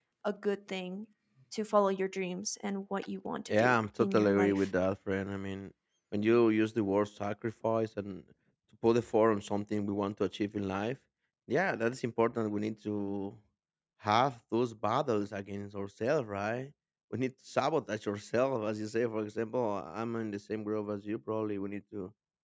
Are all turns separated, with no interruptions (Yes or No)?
No